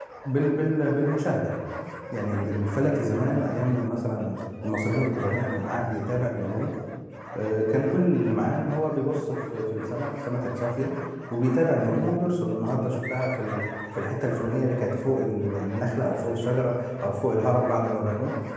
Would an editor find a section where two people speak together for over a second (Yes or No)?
No